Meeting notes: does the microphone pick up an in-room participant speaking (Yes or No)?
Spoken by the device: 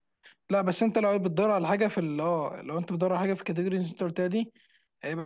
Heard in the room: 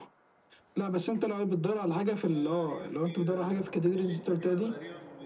Yes